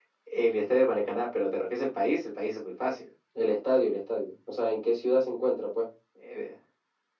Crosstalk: none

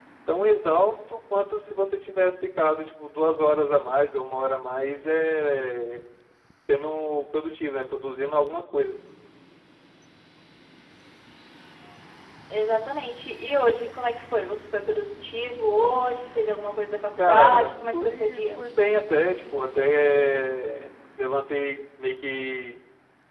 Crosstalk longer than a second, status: present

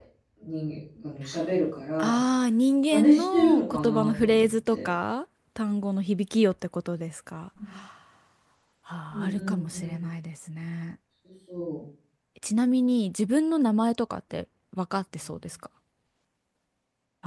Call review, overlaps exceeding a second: present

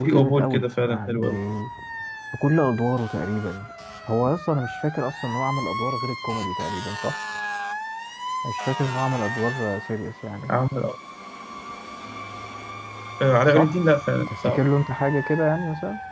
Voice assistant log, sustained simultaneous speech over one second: present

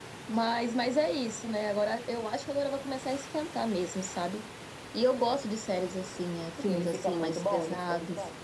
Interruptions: present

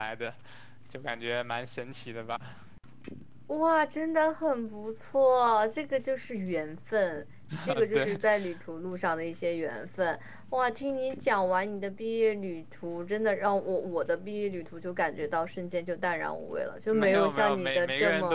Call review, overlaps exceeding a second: present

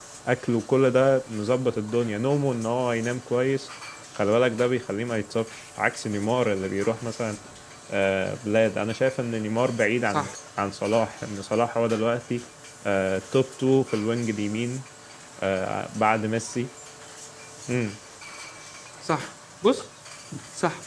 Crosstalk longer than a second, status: none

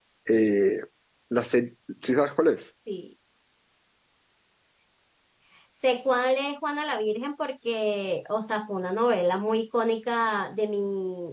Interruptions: none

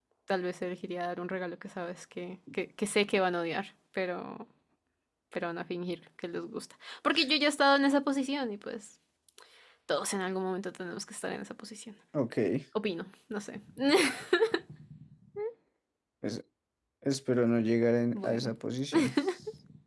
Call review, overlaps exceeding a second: none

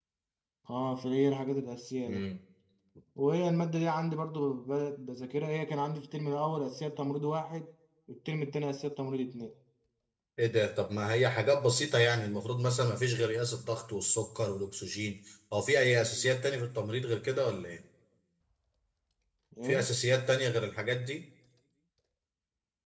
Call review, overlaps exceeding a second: none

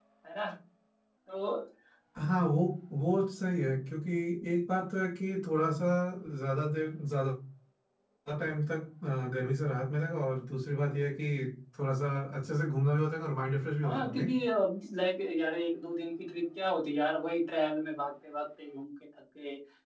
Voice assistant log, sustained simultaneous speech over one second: none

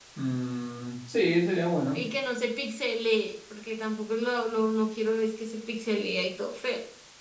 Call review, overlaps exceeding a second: none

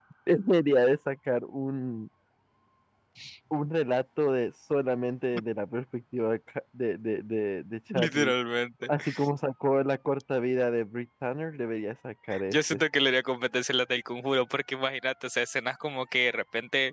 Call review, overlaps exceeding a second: none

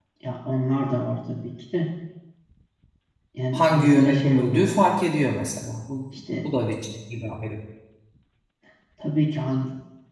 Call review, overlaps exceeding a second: present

